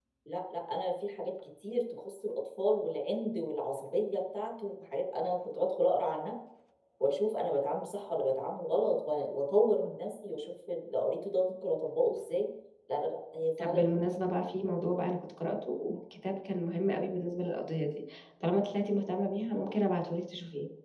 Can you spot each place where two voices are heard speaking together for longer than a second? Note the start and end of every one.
none

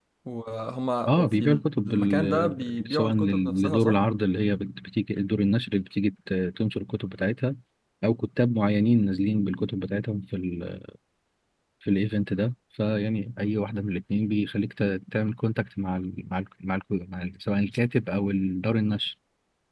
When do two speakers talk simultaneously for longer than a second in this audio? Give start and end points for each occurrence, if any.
1.1-4.0

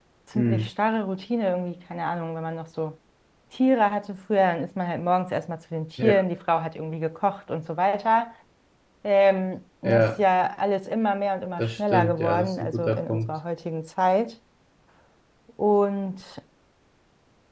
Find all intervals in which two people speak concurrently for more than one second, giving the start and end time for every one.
11.6-13.4

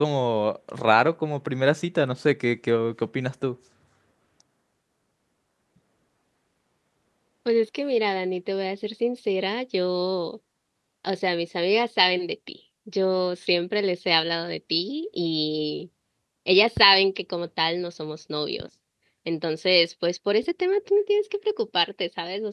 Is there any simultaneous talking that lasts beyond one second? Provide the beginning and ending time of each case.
none

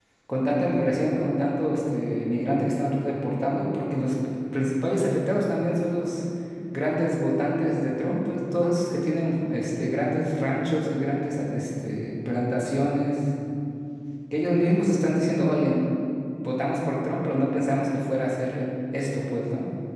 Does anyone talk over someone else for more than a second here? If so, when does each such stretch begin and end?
none

